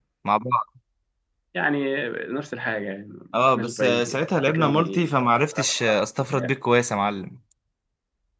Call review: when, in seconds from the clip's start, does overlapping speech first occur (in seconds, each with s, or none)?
3.3 s